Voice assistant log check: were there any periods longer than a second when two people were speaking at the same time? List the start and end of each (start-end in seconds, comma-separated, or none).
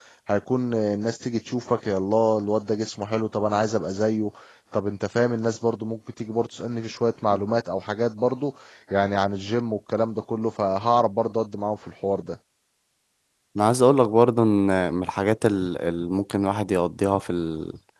none